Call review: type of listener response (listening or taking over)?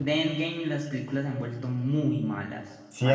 taking over